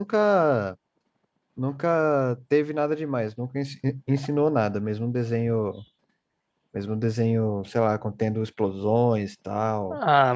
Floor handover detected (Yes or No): Yes